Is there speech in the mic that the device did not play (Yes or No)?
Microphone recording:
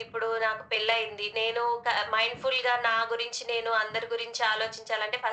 No